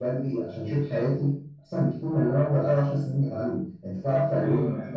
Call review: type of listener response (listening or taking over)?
taking over